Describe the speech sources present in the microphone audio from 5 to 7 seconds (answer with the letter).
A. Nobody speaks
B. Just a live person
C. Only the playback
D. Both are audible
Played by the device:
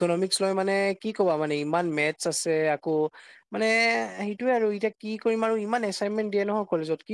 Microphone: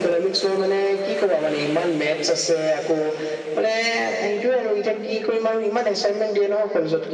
C